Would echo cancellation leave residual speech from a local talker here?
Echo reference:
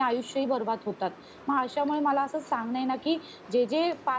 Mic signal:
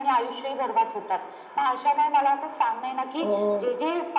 Yes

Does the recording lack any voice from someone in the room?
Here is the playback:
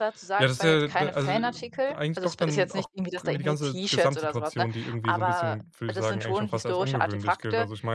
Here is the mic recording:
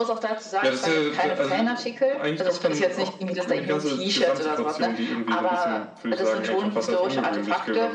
Yes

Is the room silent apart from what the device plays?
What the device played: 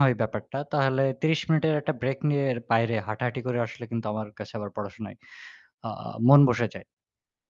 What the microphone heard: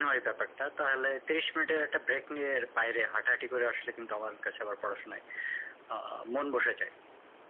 Yes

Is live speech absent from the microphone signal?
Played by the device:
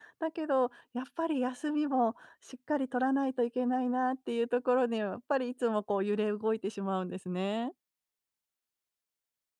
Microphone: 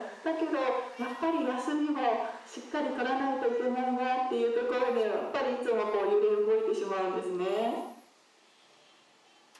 Yes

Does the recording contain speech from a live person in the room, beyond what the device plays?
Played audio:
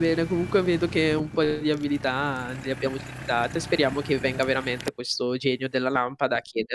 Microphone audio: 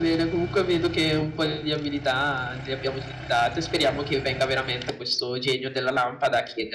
No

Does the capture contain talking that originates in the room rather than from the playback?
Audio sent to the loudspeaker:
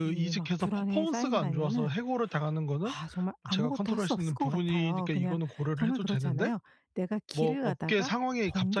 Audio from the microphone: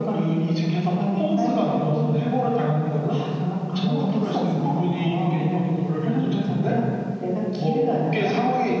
No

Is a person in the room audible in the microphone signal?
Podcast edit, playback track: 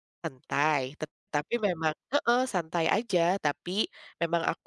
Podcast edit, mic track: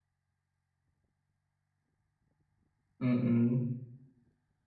Yes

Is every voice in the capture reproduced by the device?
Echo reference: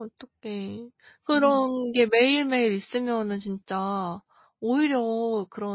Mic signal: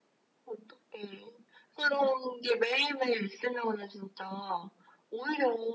Yes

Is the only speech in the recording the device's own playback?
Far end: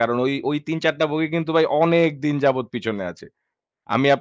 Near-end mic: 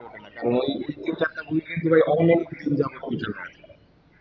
Yes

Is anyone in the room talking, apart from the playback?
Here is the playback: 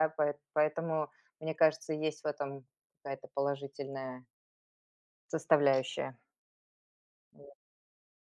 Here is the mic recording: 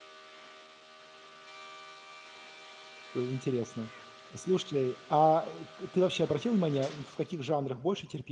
Yes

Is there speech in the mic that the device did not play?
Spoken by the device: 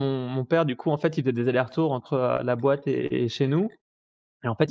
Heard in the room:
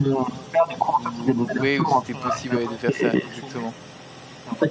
Yes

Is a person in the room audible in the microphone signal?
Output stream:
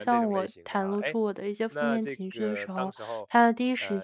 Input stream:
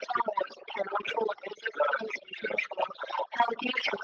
No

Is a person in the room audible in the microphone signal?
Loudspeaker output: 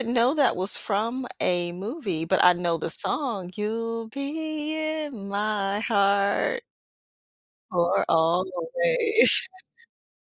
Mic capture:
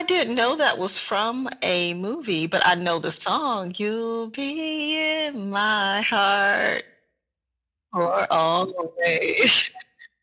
No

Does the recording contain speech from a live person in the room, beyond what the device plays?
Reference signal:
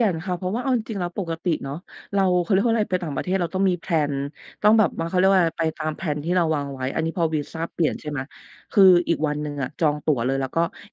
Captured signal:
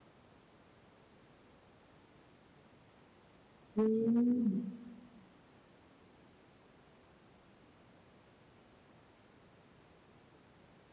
Yes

